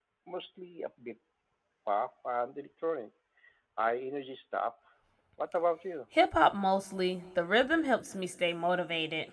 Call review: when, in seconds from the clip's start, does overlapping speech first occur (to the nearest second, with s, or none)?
none